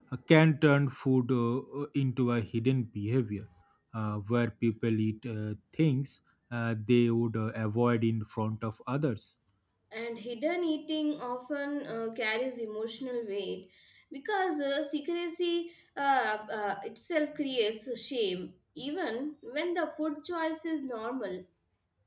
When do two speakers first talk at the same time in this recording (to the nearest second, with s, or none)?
none